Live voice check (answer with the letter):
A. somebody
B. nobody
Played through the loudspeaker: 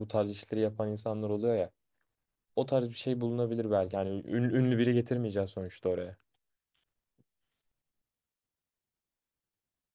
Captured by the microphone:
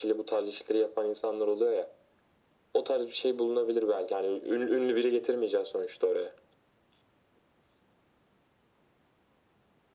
B